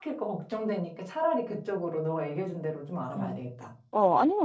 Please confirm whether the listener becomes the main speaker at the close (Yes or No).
Yes